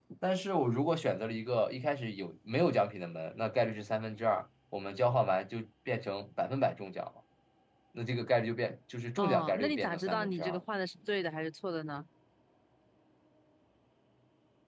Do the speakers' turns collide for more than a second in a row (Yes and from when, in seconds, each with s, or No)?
Yes, from 9.2 s